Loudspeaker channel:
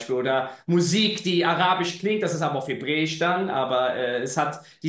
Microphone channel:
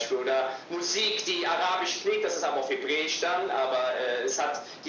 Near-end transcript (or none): none